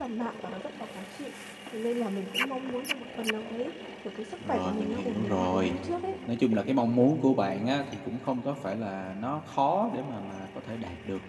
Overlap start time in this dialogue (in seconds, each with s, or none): 4.4 s